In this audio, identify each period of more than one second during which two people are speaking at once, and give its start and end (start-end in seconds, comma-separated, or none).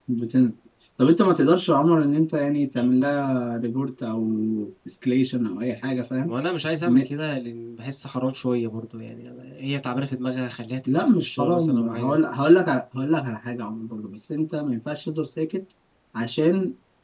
10.8-12.2